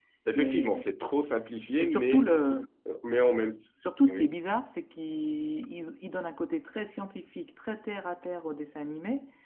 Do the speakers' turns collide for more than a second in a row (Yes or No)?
No